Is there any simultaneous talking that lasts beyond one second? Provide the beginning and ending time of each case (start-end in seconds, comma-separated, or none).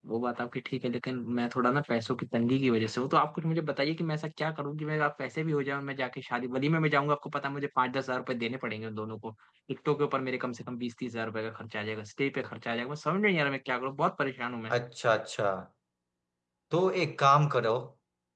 none